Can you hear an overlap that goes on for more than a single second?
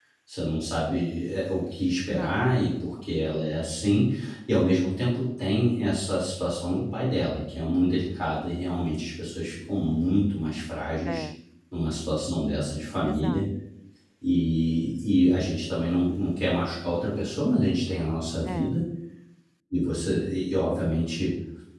No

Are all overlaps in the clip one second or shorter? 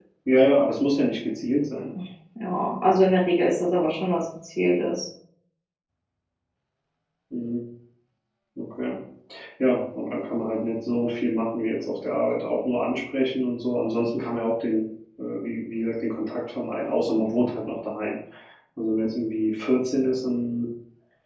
Yes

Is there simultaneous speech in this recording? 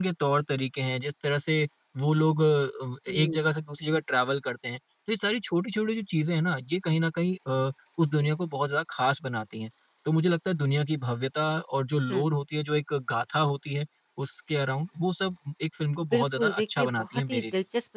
Yes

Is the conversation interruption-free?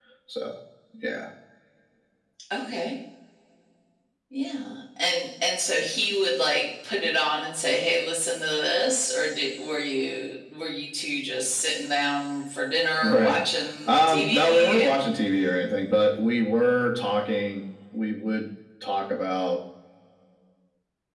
No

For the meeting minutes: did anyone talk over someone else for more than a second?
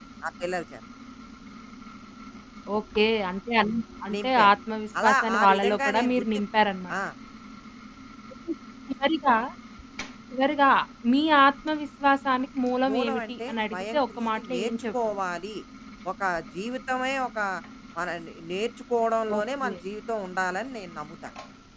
Yes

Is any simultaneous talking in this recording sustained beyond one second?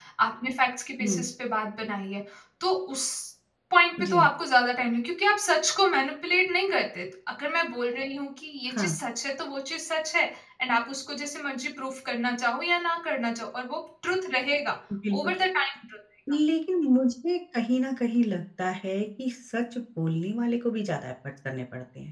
No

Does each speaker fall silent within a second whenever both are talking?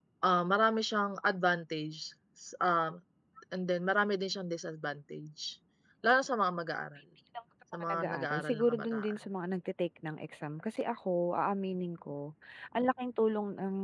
No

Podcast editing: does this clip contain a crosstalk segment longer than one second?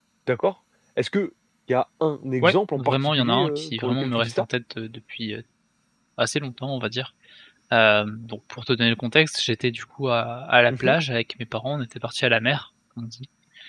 Yes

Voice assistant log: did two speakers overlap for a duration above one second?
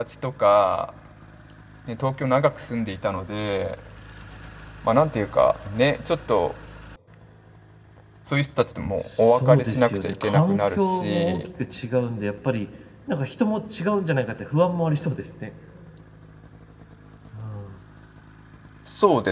Yes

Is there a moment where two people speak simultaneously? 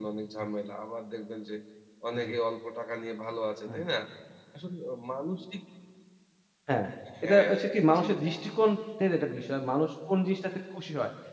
Yes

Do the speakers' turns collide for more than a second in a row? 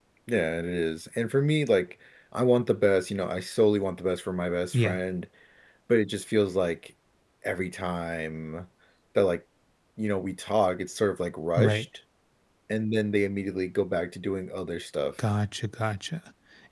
No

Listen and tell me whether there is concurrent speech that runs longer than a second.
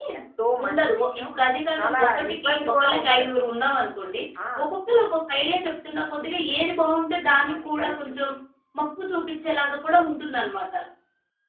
Yes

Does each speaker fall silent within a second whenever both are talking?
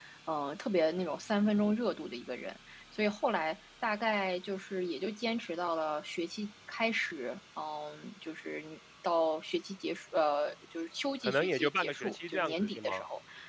No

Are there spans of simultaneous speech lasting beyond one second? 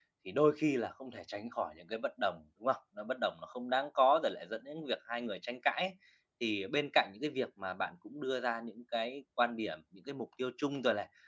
No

